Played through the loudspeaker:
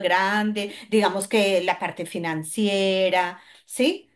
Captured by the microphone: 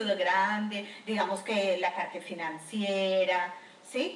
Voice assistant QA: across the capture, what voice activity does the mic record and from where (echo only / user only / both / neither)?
echo only